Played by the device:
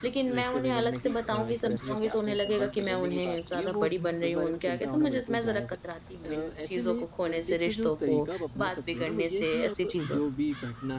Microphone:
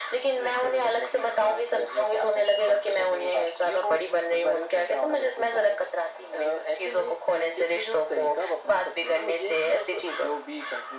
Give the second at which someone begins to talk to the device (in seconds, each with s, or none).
none